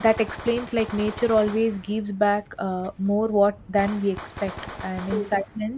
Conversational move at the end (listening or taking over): listening